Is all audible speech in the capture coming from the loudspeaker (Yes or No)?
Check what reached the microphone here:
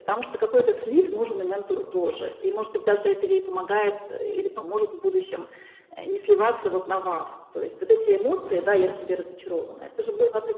Yes